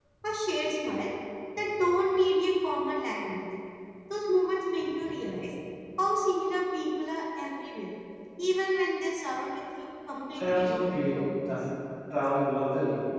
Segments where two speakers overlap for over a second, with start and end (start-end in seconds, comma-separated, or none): 10.4-11.6